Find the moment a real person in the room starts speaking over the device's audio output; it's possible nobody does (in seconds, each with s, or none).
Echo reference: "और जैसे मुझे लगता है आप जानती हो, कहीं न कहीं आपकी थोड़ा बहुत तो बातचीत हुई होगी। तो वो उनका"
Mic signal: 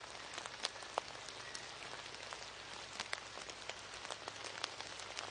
none